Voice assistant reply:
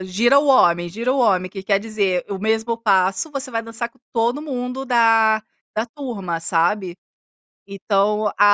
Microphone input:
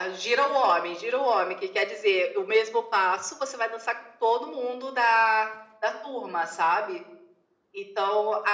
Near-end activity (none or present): none